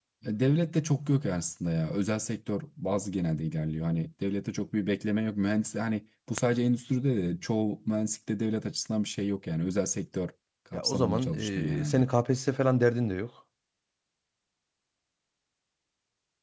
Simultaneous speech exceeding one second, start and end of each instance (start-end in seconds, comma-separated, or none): 10.7-12.1